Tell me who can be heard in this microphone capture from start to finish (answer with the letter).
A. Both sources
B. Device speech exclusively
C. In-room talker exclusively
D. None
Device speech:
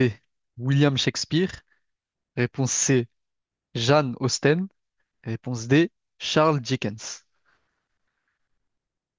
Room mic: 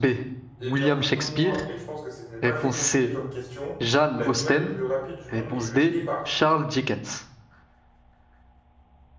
A